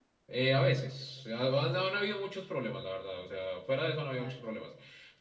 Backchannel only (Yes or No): Yes